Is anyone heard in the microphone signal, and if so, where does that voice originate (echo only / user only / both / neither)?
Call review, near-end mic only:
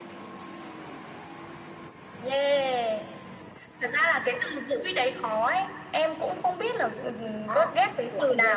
both